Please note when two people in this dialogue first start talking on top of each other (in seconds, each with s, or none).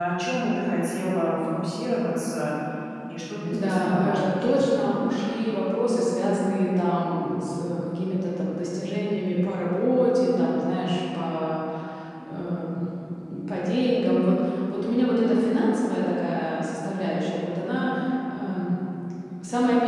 3.5 s